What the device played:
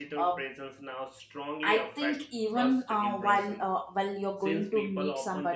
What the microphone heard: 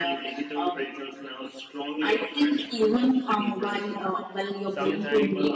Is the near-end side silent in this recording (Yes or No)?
No